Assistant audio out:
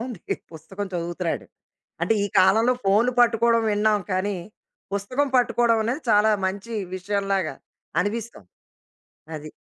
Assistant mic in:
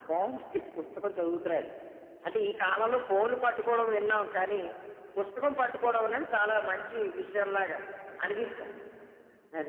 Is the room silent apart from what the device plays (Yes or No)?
Yes